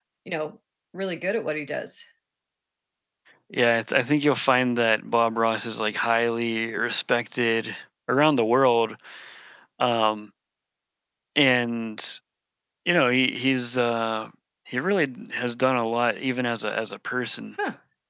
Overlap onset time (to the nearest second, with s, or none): none